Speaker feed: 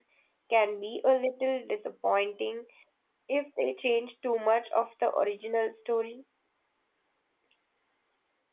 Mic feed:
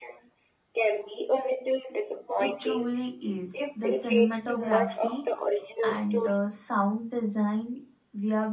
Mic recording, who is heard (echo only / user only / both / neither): both